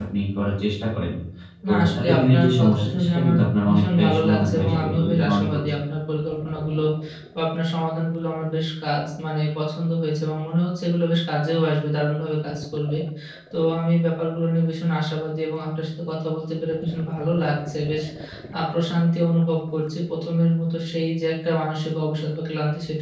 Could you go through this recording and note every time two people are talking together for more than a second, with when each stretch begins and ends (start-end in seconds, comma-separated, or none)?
1.7-5.6